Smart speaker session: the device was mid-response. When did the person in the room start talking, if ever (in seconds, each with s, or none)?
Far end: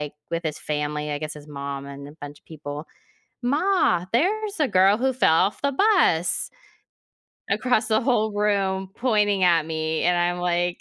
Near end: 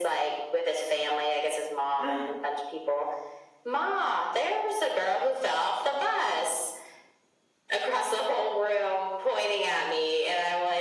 2.0 s